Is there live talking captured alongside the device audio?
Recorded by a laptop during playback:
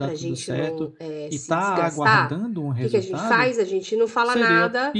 Yes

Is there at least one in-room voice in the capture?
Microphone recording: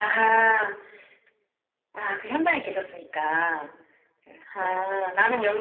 Yes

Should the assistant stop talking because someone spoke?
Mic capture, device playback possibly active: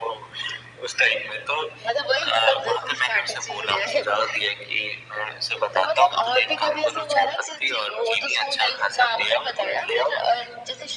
No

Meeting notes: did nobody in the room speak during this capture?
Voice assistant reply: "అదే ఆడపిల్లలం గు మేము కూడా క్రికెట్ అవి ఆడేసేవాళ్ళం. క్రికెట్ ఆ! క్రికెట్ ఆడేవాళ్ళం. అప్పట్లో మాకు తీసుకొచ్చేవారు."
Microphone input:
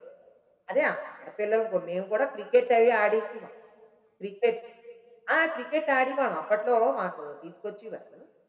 Yes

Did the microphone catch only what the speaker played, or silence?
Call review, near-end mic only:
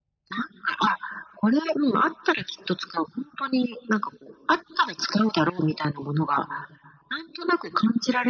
Yes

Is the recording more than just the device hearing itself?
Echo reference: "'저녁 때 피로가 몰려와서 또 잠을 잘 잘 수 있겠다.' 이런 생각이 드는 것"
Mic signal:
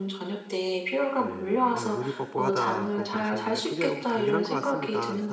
Yes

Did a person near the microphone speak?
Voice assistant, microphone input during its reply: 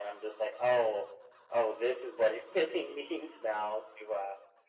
No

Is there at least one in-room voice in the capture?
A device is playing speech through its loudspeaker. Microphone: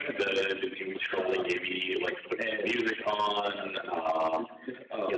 No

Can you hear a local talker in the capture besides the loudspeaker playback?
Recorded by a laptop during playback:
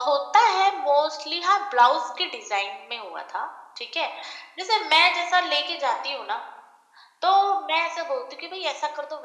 No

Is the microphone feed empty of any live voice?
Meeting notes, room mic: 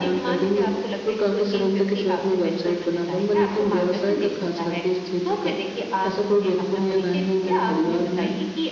Yes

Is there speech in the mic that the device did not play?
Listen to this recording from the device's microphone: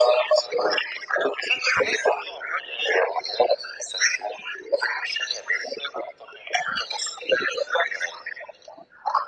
No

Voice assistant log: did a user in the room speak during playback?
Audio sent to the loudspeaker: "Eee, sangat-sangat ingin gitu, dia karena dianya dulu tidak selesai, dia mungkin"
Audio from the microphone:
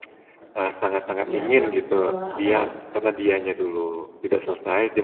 Yes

